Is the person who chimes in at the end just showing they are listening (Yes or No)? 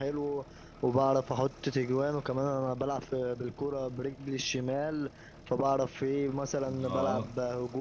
Yes